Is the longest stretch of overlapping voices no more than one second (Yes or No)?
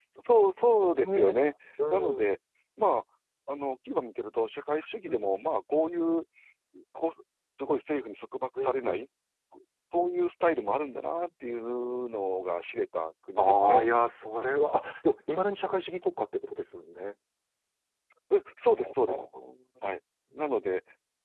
Yes